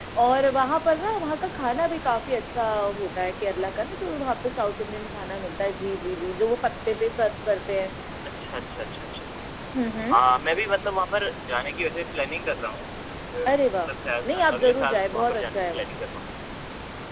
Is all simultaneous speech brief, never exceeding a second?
No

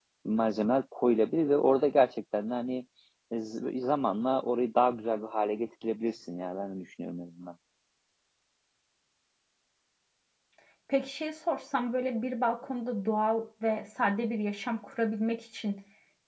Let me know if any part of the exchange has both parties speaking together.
No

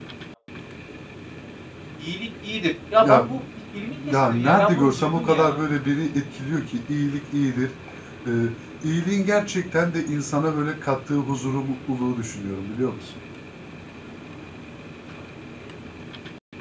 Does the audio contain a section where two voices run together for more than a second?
Yes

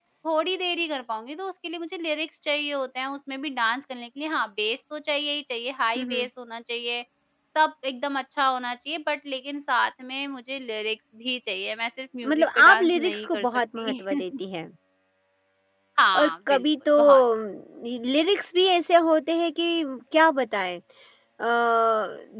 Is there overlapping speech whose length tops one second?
Yes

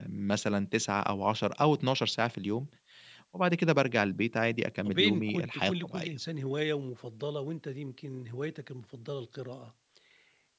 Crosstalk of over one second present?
Yes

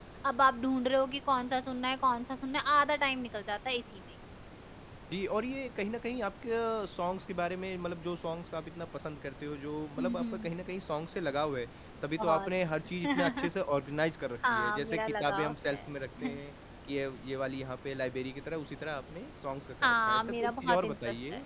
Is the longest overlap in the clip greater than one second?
Yes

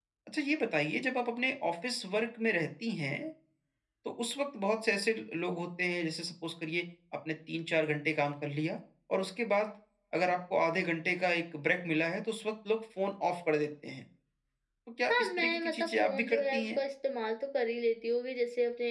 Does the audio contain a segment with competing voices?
Yes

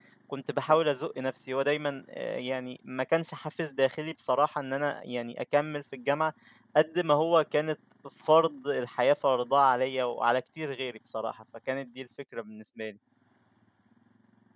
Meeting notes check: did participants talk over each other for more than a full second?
No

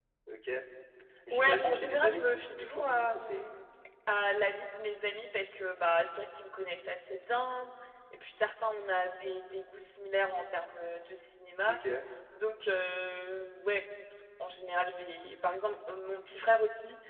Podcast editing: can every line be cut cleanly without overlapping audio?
No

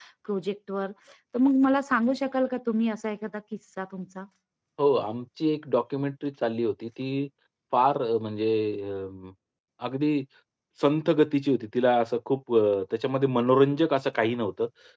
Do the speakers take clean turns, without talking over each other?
Yes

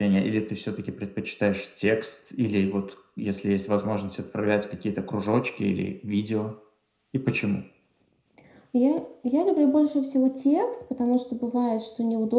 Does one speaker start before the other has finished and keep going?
No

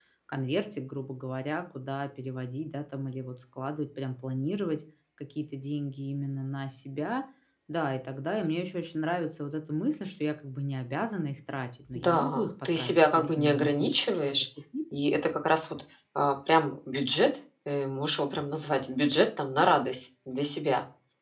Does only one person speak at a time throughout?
No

